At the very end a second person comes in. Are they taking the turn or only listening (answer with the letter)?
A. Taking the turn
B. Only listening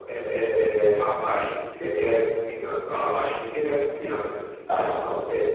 B